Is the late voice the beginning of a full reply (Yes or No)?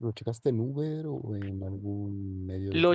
Yes